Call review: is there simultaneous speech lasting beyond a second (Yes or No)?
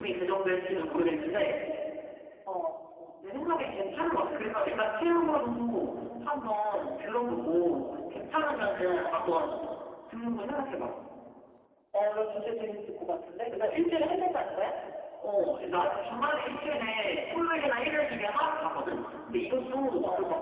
No